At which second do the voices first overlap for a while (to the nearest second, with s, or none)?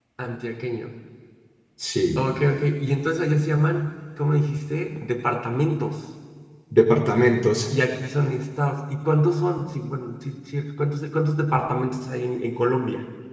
none